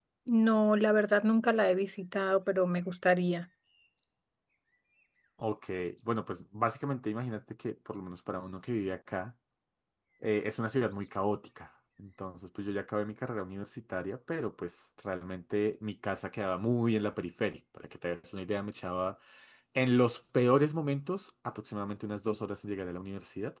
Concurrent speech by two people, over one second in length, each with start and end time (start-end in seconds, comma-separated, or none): none